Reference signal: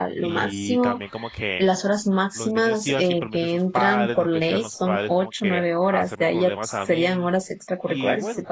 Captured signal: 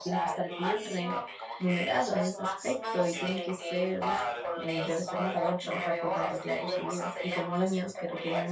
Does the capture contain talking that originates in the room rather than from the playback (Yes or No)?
Yes